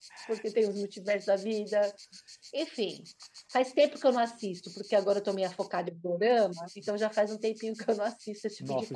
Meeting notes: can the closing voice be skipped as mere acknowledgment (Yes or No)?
No